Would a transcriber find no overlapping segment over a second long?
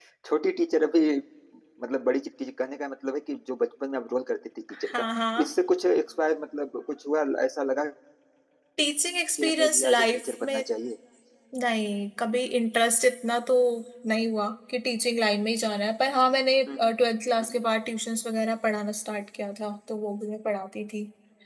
No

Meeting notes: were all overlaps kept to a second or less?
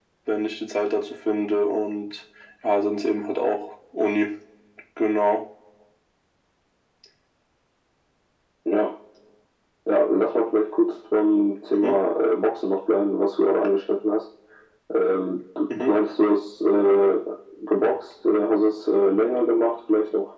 Yes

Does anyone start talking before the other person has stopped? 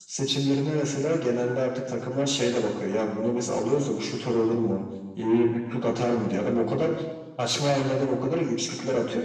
No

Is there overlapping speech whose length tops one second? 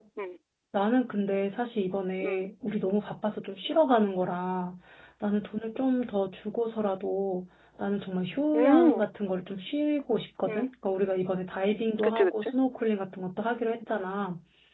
No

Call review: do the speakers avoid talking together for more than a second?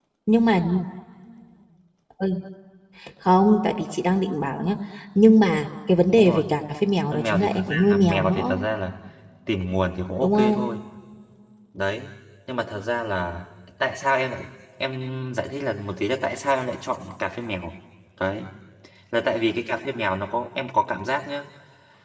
No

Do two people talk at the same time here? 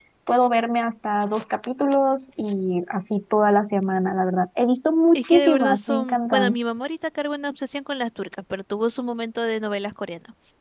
Yes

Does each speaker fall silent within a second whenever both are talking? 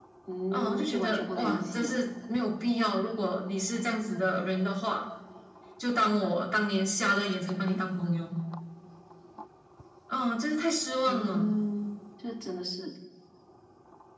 No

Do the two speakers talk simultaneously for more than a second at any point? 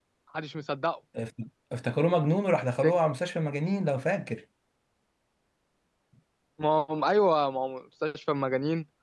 No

